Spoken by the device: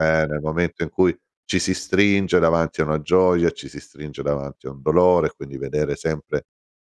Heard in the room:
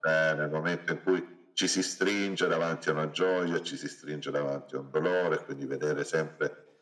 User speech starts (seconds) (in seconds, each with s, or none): none